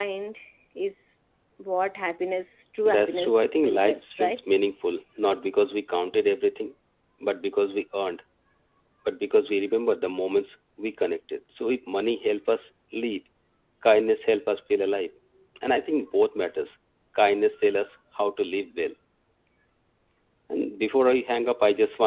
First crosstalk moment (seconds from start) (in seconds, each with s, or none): 2.8 s